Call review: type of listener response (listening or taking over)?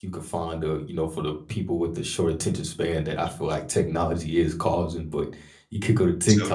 listening